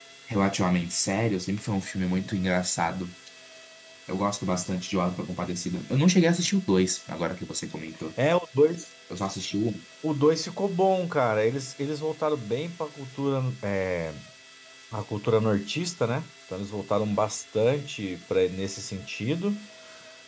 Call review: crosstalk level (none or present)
none